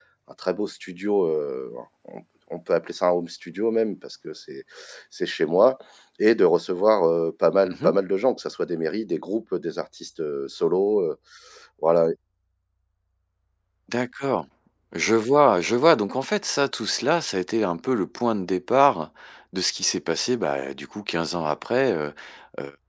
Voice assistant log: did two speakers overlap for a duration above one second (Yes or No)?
No